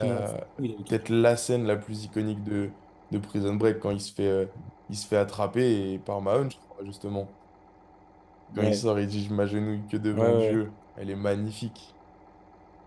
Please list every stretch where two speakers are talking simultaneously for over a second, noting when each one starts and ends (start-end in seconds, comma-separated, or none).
none